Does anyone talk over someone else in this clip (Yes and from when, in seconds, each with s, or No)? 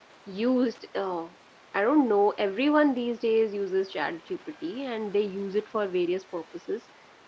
No